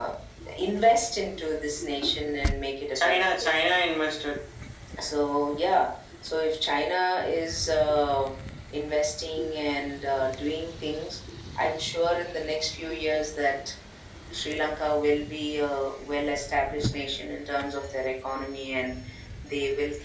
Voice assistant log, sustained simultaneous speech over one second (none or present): none